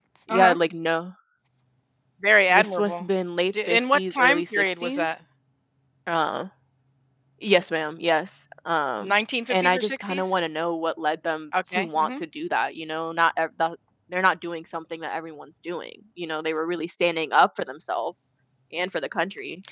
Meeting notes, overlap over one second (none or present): present